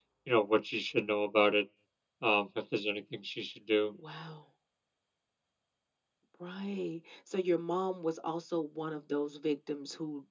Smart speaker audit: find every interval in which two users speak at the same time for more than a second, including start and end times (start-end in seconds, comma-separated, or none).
none